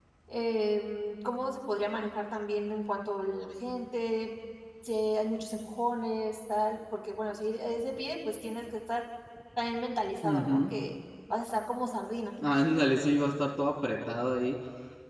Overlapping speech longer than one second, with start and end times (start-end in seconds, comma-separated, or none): none